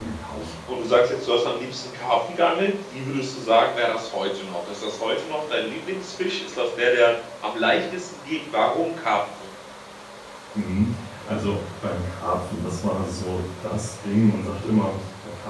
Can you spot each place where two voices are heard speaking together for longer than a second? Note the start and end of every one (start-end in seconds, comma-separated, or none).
none